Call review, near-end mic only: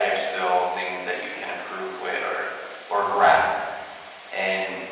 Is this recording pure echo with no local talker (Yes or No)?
Yes